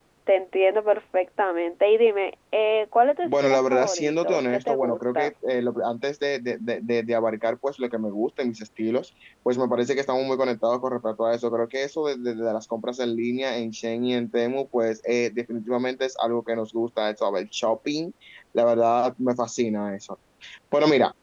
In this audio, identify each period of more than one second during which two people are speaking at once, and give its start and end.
3.2-5.3

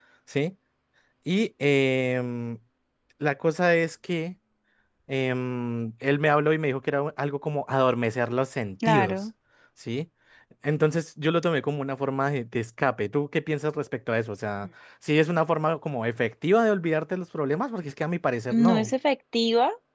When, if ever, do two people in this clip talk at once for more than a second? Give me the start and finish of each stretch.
none

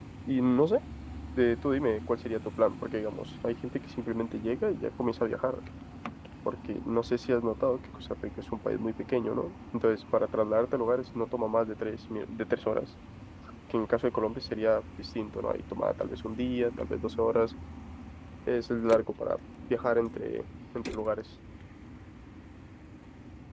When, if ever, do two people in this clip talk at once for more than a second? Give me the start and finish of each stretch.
none

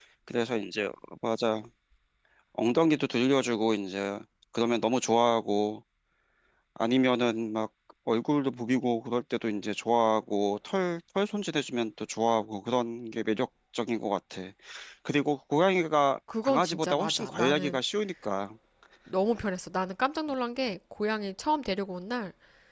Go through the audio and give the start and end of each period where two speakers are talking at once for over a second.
16.4-17.8

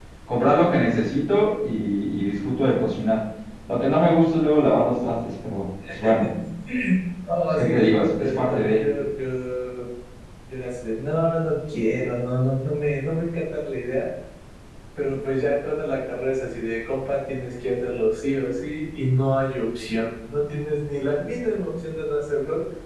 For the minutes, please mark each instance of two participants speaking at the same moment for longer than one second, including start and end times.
7.5-8.8

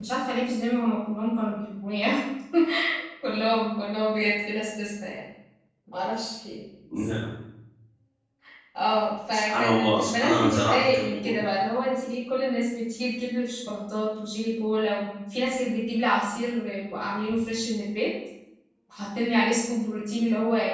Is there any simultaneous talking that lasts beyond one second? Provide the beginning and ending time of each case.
9.3-11.3

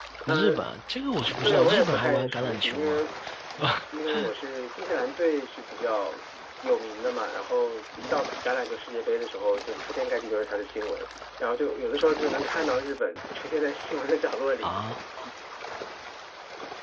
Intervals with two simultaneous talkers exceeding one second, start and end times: 1.4-3.0

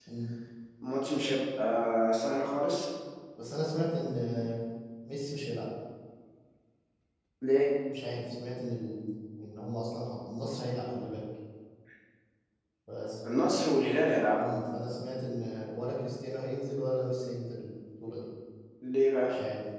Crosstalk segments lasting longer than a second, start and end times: none

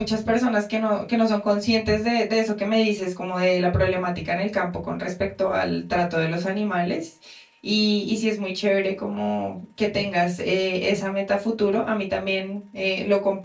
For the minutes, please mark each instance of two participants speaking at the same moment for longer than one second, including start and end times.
none

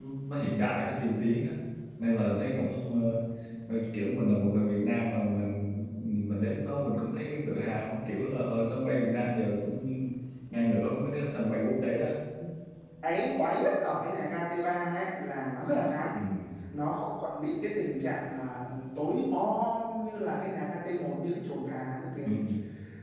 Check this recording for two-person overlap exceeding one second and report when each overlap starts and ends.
none

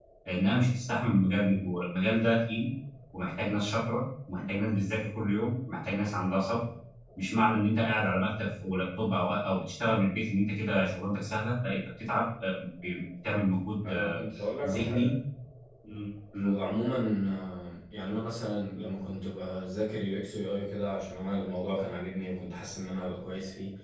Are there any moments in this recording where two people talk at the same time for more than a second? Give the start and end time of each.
none

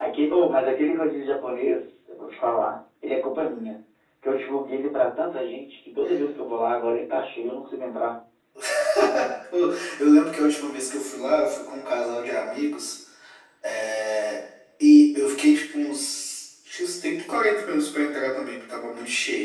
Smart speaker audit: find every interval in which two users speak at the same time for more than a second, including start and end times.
none

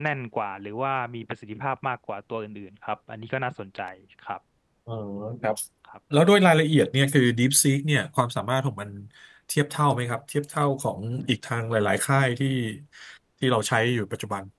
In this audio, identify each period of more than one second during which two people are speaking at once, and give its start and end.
none

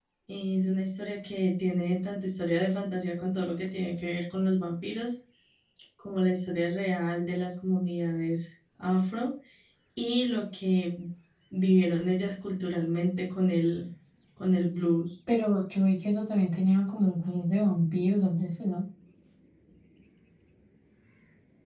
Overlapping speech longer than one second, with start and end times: none

